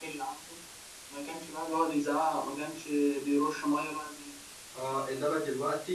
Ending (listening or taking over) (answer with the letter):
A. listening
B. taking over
B